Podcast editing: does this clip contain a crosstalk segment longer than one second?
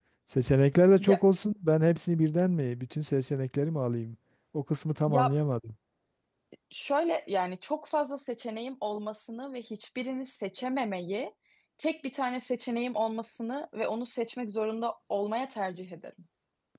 No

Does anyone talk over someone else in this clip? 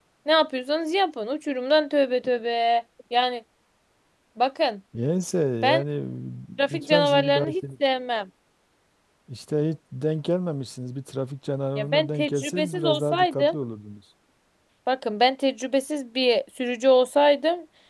Yes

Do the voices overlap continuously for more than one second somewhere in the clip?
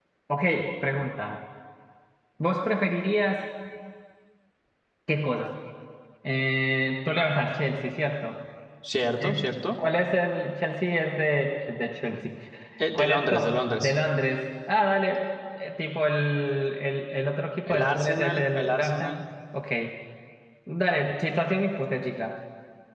Yes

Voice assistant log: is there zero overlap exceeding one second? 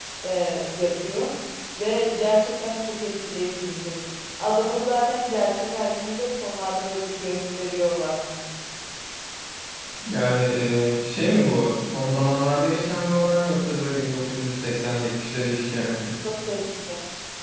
Yes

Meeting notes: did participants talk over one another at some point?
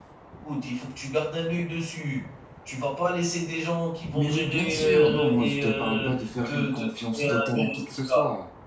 Yes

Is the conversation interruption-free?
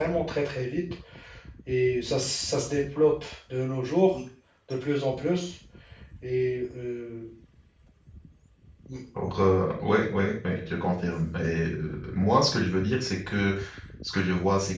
Yes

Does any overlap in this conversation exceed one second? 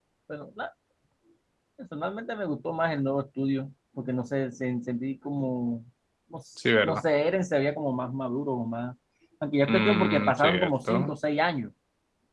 Yes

